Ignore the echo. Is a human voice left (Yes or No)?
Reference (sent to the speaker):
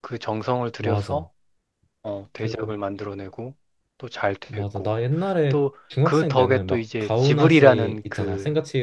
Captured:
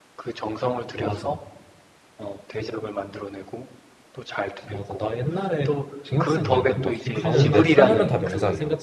Yes